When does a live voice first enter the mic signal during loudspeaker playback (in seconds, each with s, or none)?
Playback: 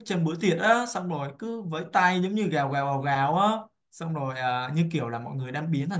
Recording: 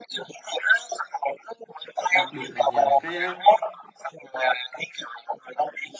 2.1 s